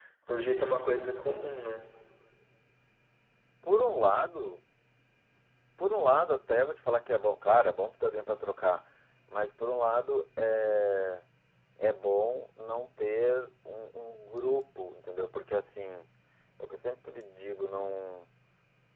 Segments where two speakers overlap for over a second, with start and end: none

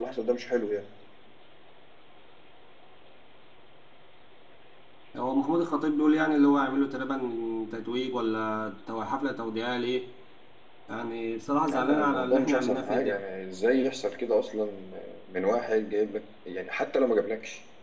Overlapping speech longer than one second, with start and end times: 11.7-13.2

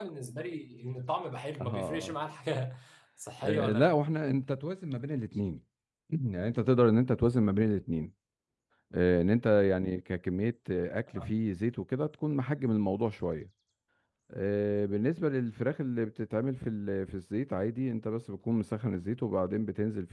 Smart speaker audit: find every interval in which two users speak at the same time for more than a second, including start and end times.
none

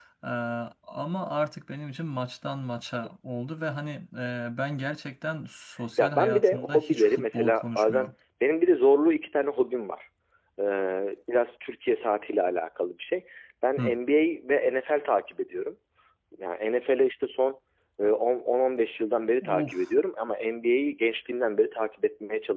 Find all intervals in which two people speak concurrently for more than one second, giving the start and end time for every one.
6.0-8.1

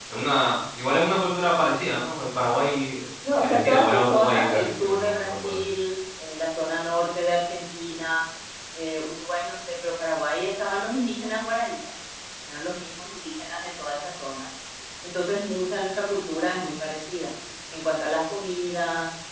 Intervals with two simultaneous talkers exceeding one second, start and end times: 3.4-5.6

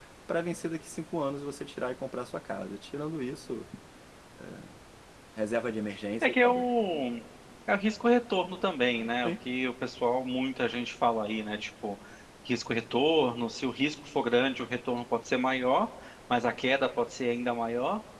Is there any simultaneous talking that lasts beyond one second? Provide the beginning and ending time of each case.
none

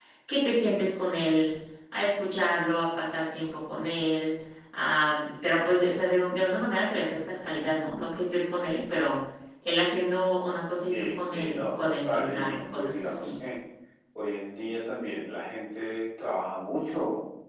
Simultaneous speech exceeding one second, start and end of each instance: 10.9-13.3

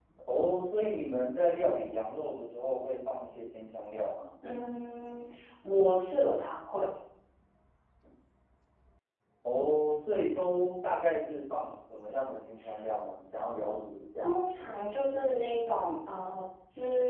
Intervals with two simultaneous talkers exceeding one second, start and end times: none

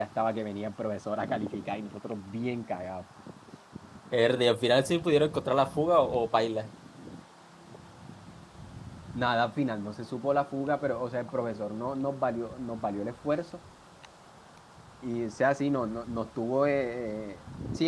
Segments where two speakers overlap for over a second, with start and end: none

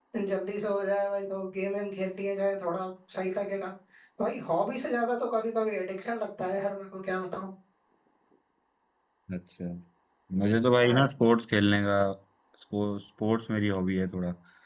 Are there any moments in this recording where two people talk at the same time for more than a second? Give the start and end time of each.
none

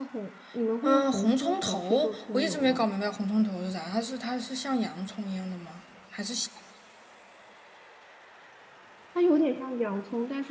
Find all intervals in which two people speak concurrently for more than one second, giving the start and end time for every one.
0.8-2.8

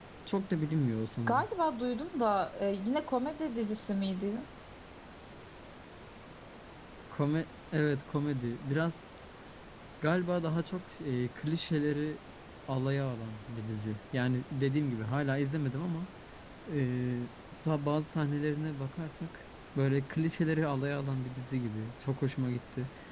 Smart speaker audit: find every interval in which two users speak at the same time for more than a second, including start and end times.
none

